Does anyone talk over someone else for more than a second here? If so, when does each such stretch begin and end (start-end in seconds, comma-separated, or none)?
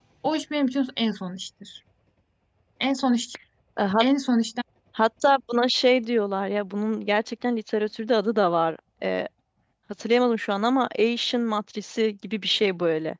none